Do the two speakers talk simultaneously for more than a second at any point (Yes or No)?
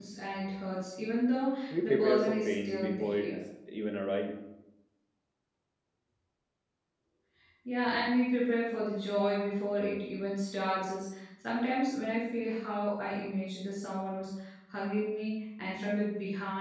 Yes